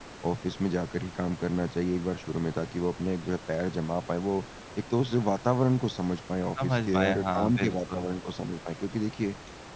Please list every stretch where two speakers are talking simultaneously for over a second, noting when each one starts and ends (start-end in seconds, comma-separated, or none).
6.6-8.1